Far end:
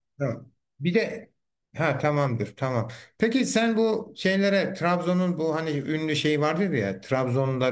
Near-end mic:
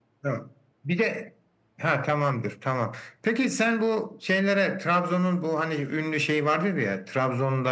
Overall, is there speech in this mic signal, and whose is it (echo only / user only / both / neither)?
echo only